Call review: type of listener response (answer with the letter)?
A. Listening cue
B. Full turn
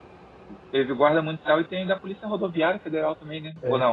B